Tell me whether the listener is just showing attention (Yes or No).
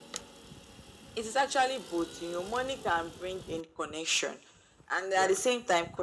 Yes